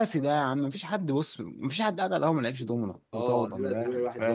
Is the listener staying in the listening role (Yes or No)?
No